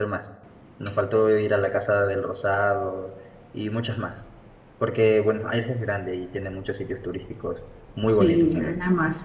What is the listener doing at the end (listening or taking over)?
taking over